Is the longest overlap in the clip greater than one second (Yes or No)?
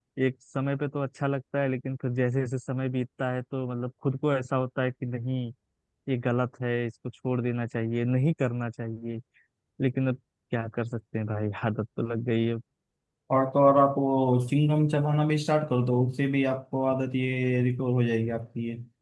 No